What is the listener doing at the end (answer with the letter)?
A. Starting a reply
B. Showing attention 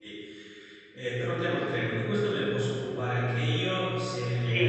A